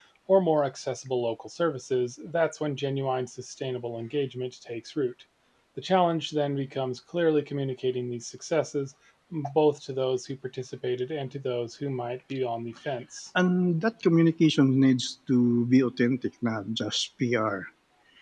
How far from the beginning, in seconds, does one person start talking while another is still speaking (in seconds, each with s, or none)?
none